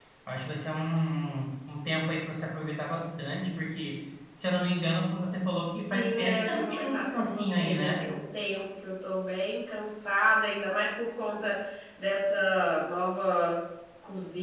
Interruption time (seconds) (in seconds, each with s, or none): 5.9 s